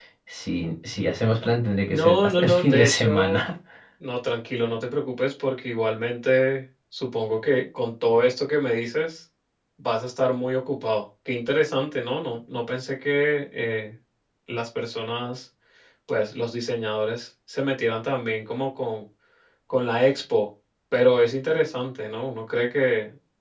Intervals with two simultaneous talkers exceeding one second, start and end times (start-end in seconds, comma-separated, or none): 1.9-3.4